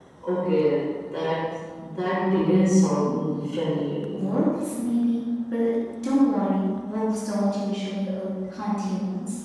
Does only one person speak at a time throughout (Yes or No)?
Yes